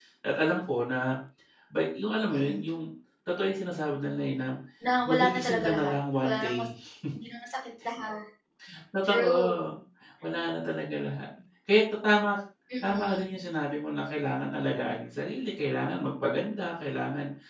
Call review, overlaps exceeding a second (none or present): present